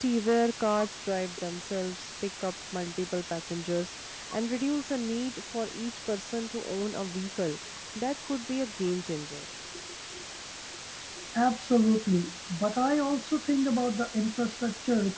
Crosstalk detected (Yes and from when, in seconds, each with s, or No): No